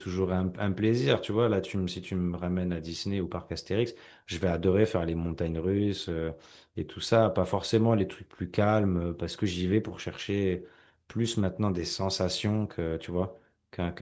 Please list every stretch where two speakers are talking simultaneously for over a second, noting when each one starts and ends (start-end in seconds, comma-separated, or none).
none